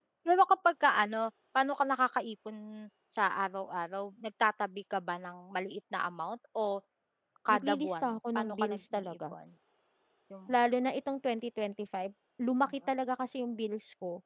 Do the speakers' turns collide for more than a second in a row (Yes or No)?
Yes